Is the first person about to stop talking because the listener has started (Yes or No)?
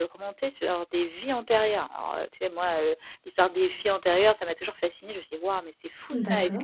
No